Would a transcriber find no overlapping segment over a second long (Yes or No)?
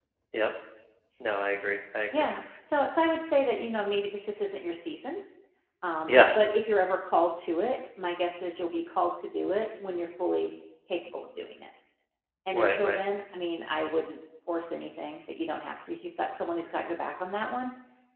Yes